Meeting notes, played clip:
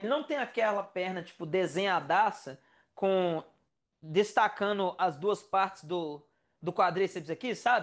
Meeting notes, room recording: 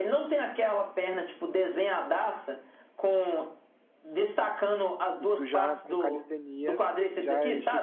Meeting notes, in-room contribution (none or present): present